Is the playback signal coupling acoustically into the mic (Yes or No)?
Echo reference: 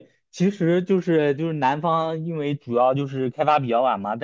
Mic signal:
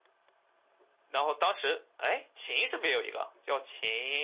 No